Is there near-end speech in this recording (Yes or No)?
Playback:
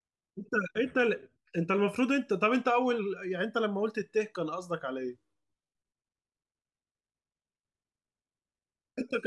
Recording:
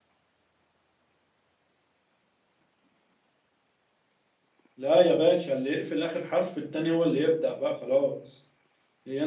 Yes